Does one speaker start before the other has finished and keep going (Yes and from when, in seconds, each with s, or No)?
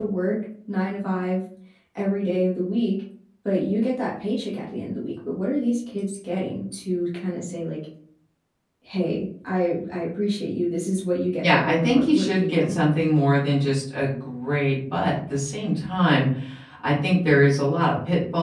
Yes, from 11.4 s